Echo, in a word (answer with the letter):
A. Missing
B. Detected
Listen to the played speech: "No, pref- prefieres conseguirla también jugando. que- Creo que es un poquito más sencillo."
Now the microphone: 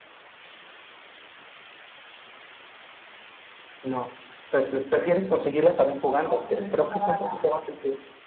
B